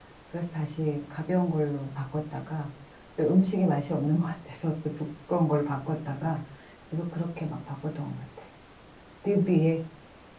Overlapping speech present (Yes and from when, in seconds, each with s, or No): No